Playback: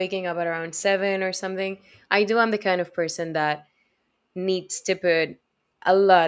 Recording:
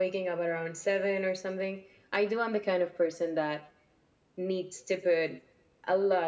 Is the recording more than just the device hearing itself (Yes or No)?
No